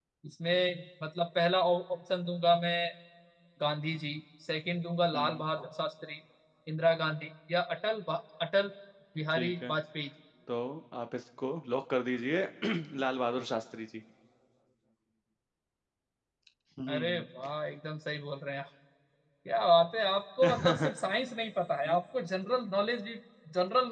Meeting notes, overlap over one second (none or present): none